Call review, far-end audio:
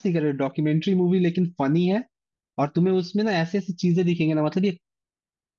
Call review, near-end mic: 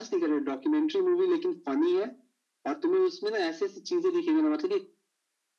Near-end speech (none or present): none